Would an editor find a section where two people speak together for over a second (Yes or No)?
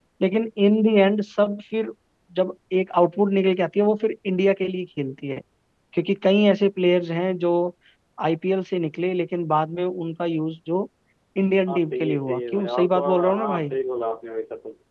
Yes